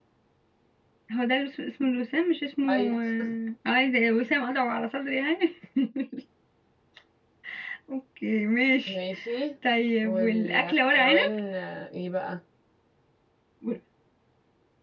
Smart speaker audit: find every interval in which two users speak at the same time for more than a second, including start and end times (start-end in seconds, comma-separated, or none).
10.0-11.3